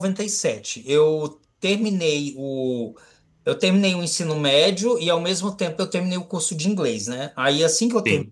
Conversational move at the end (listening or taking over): listening